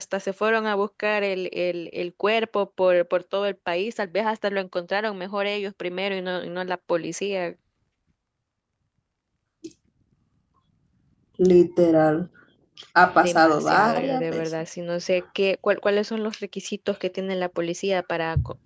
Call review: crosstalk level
present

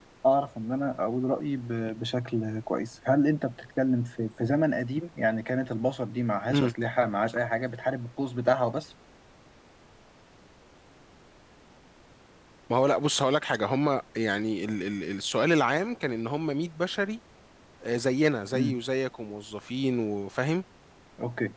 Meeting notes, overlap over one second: none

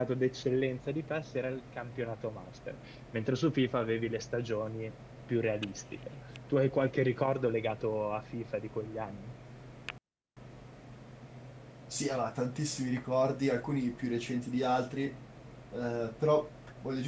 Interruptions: none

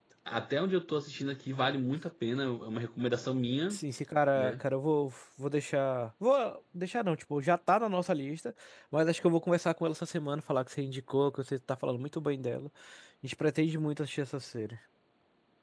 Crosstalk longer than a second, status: none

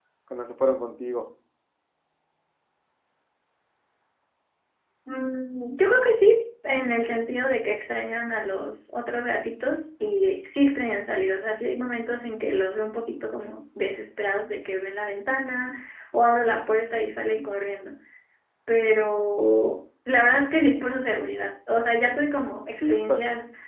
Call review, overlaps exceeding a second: none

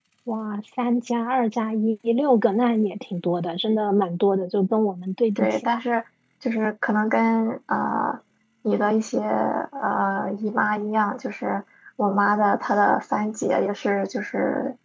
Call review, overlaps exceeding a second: none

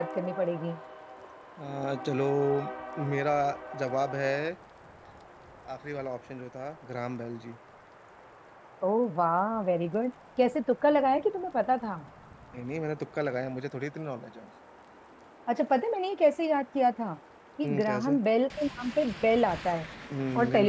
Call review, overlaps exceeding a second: none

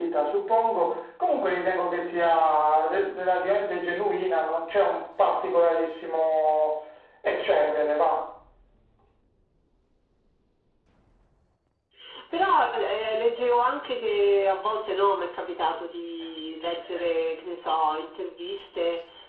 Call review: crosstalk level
none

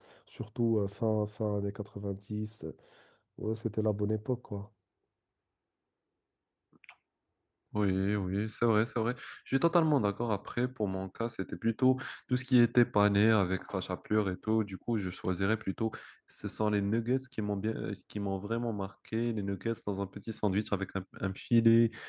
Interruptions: none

